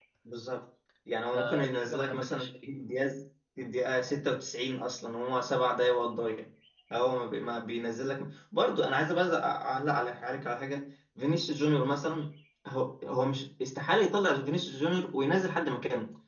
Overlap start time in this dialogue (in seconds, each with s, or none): 1.3 s